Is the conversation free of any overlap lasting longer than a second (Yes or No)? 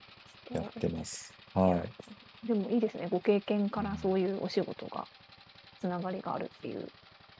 Yes